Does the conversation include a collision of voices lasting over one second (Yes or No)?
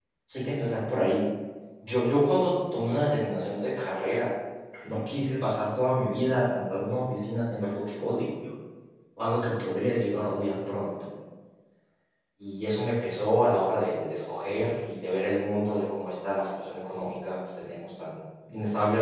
No